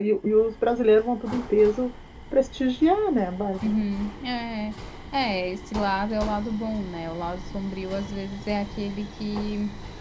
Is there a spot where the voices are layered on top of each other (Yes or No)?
No